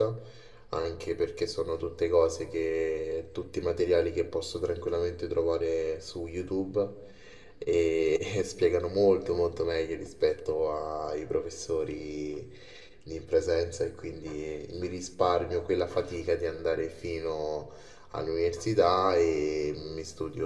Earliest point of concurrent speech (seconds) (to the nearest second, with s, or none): none